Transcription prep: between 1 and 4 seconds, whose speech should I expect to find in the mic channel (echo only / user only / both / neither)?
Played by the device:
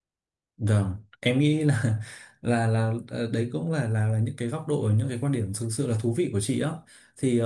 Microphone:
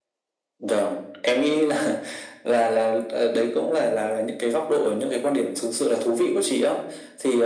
echo only